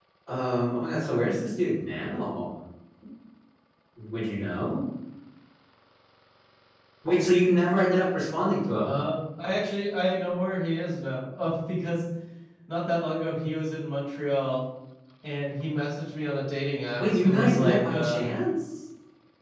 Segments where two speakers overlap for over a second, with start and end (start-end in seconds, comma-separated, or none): 17.0-18.2